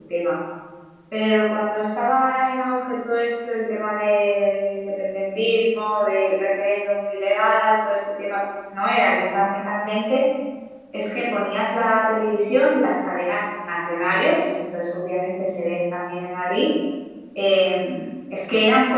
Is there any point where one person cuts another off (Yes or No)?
No